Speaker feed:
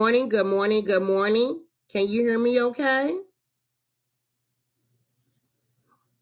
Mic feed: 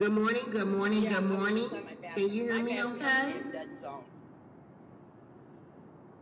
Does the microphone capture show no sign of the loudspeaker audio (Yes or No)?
No